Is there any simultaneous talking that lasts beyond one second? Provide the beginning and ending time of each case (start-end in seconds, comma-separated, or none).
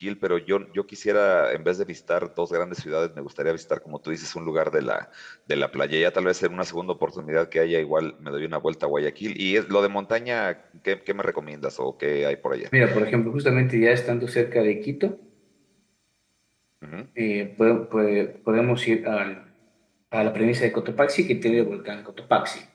none